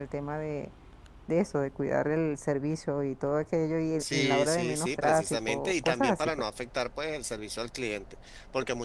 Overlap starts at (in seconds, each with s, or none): 4.0 s